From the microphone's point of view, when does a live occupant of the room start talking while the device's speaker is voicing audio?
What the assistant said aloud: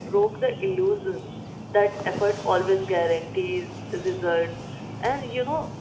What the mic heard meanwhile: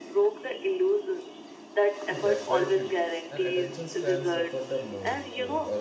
2 s

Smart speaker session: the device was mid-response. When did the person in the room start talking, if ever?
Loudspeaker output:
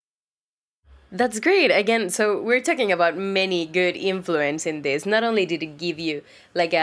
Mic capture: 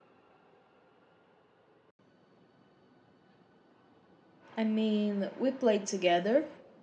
5 s

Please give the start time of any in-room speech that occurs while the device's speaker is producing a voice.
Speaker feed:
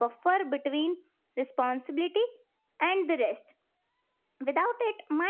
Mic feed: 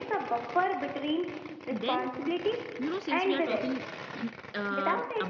2 s

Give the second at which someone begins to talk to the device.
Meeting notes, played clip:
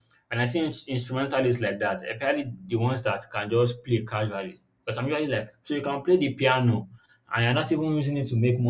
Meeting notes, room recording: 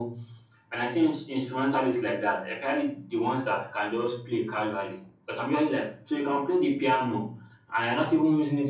none

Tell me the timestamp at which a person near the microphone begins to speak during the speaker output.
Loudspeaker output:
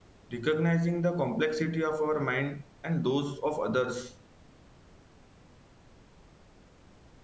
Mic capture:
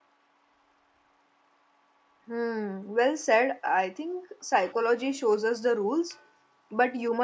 2 s

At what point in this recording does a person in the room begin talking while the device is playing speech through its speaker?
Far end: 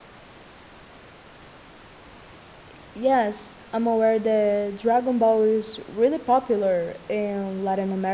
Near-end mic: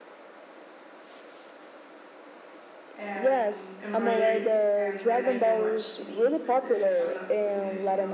3 s

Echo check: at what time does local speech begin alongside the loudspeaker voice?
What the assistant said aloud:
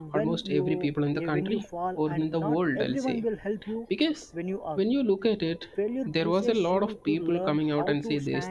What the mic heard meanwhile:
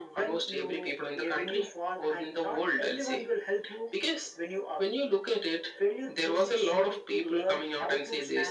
none

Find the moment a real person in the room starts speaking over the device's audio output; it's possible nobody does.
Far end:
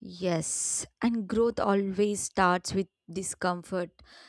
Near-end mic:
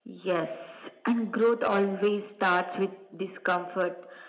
none

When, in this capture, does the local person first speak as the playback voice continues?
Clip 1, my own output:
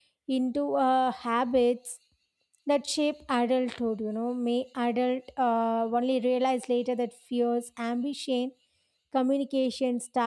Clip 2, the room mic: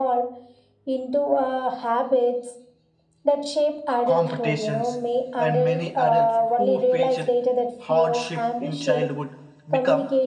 4 s

